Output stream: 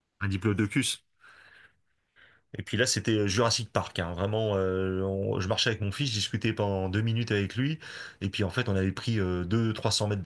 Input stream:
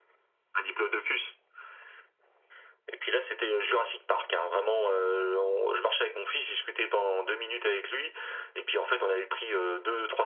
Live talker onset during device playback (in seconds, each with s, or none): none